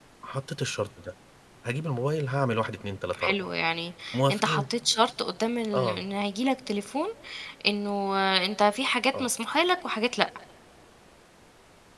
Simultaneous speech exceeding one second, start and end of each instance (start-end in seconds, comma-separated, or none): none